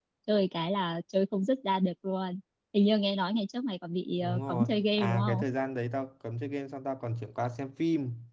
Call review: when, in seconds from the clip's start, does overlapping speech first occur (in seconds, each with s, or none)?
4.2 s